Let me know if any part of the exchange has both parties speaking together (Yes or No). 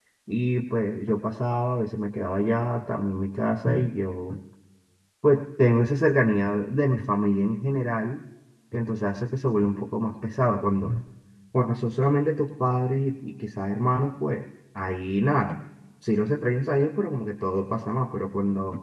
No